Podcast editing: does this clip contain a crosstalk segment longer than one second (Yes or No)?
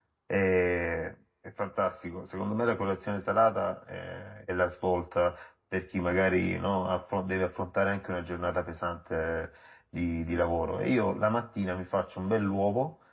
No